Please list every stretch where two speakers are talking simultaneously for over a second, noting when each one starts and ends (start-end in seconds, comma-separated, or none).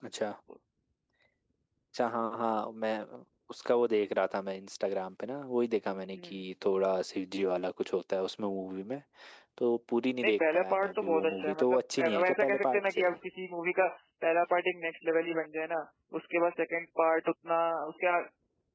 10.2-13.1